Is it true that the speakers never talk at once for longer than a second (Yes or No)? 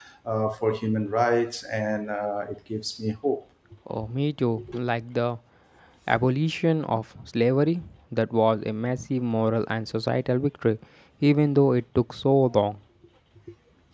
Yes